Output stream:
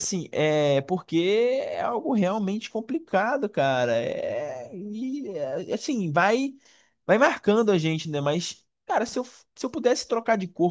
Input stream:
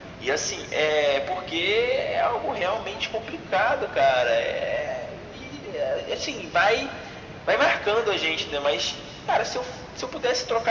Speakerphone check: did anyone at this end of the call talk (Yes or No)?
No